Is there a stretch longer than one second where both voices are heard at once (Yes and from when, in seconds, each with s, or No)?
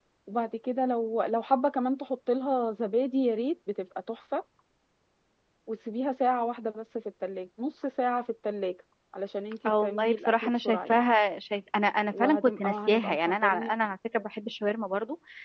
Yes, from 9.8 s